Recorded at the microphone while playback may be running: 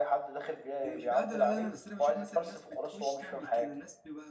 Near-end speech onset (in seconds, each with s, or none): 0.8 s